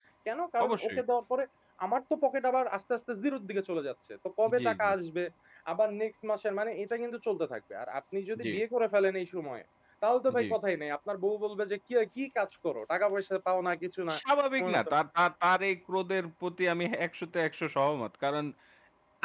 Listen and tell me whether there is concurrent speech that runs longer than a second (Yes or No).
No